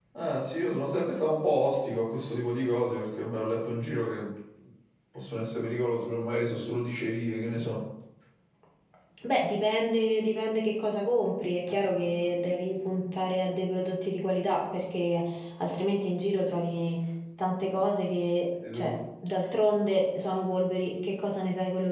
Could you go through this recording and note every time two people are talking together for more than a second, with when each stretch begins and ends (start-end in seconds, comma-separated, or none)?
none